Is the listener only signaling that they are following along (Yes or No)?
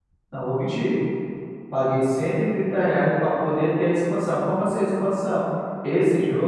Yes